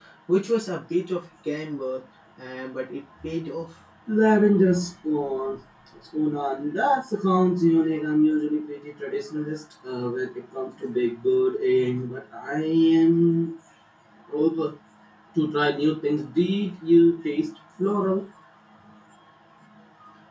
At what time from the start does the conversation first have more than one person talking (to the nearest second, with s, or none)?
none